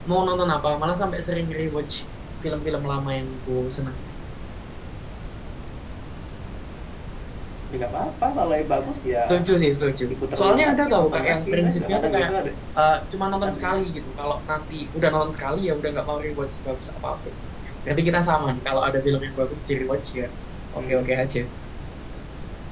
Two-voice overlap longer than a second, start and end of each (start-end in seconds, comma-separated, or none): 10.1-12.3